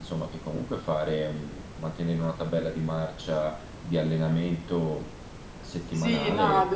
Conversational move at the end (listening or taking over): taking over